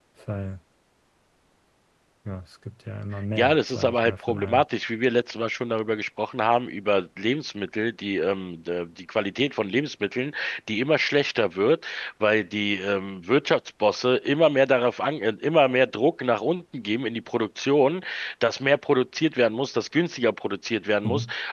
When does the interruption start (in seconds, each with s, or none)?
3.4 s